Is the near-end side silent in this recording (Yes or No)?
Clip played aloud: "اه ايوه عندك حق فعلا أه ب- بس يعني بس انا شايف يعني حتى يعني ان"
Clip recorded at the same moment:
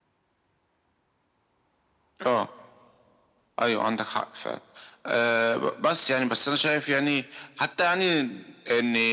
Yes